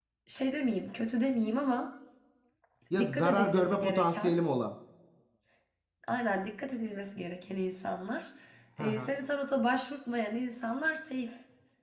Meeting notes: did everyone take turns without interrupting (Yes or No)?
No